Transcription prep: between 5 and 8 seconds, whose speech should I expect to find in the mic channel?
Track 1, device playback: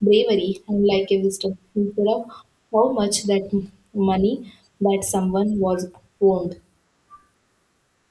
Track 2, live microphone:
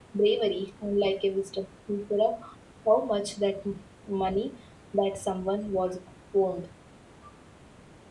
echo only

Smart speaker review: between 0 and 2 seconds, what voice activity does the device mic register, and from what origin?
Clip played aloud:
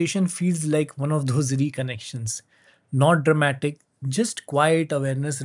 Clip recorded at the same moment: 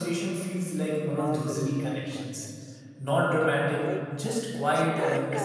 both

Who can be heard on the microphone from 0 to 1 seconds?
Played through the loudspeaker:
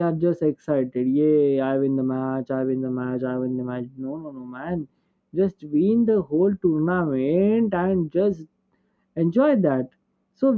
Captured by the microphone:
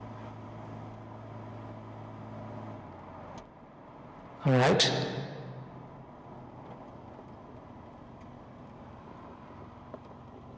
neither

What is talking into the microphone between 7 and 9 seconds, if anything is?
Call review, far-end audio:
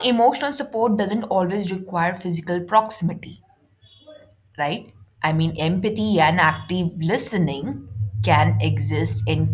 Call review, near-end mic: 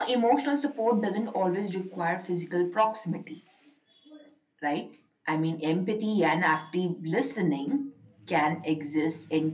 echo only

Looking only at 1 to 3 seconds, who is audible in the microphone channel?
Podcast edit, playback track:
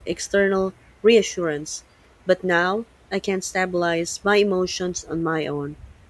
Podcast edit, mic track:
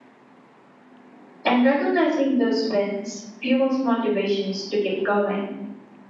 user only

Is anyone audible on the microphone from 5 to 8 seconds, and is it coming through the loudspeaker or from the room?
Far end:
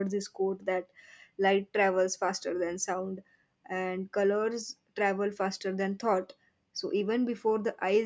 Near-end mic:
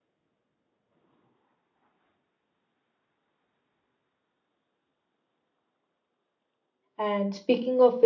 user only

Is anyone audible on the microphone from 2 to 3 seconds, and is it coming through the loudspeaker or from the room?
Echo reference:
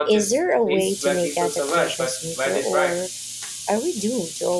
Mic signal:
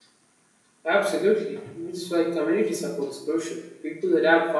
user only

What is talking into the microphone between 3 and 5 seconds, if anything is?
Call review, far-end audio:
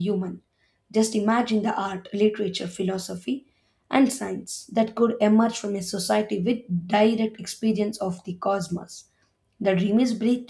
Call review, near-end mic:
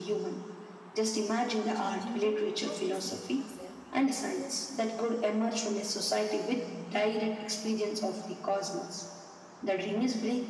both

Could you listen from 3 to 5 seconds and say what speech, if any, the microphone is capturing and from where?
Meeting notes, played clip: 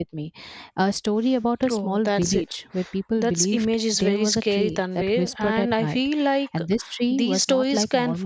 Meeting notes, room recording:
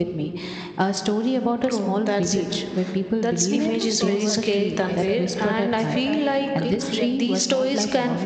both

